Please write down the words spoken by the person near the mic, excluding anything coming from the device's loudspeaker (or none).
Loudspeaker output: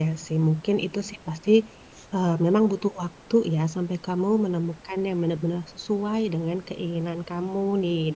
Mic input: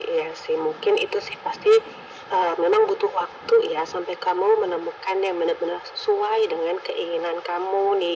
none